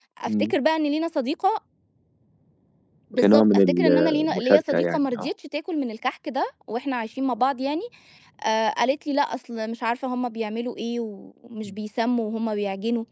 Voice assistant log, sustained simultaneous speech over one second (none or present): present